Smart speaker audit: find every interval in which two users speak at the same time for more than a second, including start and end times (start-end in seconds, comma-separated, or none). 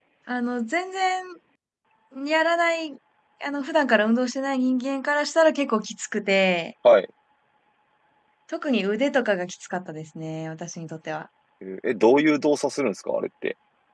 none